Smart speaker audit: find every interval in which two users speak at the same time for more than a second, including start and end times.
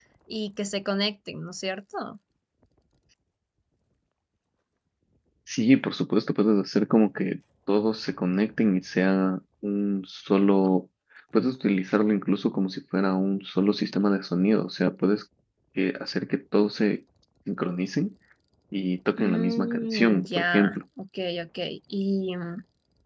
19.2-20.8

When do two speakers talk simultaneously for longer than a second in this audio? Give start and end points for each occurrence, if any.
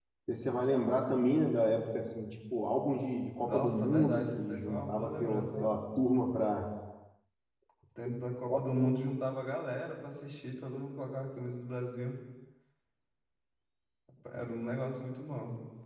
3.5-5.7

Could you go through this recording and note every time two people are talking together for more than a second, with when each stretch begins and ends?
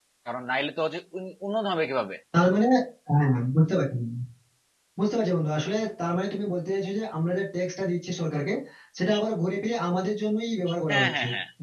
none

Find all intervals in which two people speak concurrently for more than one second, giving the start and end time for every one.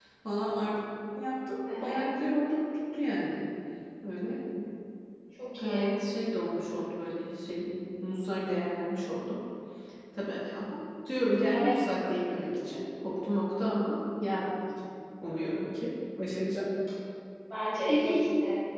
none

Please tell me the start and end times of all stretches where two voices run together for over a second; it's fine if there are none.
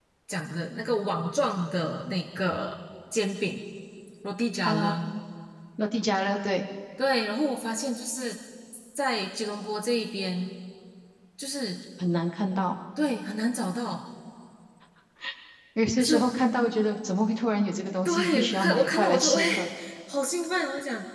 18.1-19.4

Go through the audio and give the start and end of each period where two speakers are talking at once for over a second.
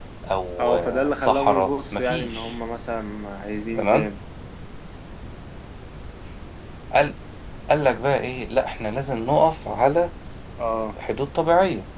0.6-2.5

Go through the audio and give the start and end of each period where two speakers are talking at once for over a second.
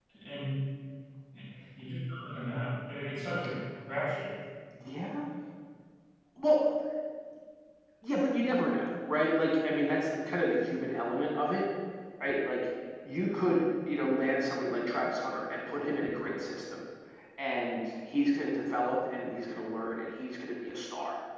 none

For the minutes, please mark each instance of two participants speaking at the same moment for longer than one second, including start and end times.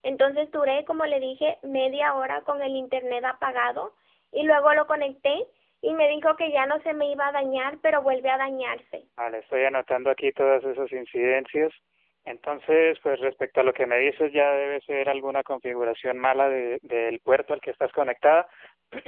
none

